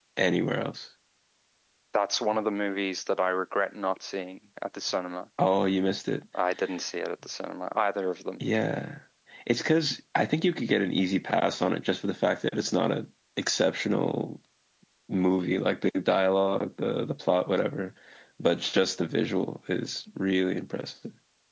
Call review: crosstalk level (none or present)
none